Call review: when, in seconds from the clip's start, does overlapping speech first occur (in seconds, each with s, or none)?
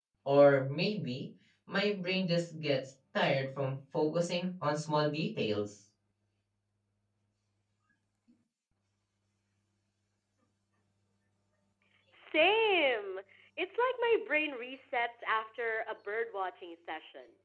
none